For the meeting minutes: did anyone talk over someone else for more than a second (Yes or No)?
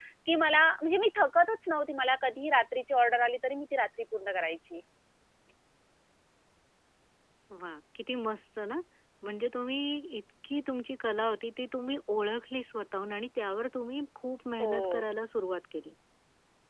No